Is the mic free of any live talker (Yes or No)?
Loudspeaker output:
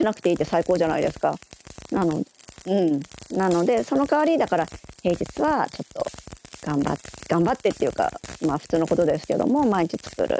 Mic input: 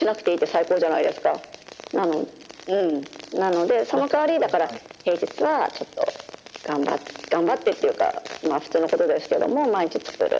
No